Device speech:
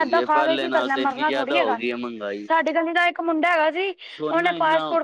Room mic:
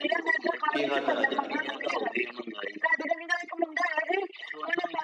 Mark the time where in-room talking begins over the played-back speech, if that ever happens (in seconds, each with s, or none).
0.7 s